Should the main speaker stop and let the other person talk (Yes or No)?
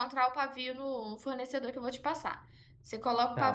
Yes